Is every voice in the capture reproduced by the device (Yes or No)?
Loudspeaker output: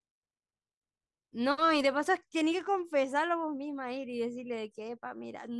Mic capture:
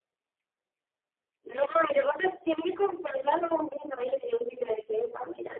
Yes